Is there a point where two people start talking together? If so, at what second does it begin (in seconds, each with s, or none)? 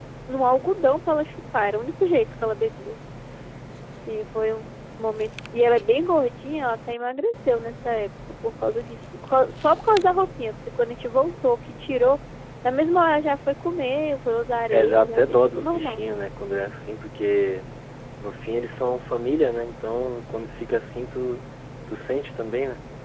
14.7 s